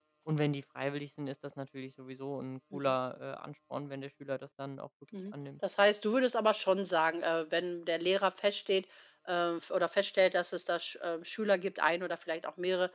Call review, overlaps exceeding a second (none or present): none